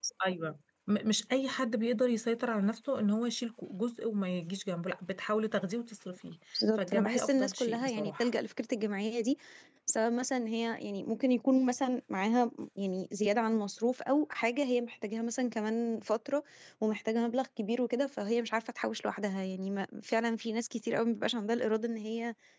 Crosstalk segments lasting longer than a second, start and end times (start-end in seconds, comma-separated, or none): 6.8-8.3